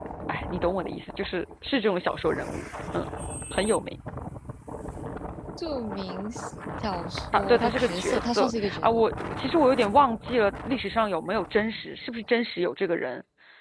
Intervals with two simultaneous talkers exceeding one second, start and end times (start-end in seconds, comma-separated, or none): 7.3-9.0